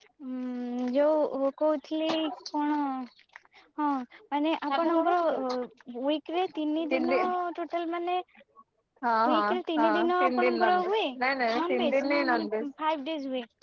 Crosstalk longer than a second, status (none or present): present